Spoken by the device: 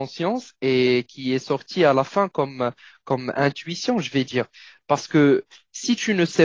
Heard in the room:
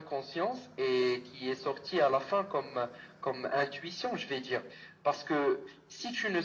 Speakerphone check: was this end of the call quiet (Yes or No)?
Yes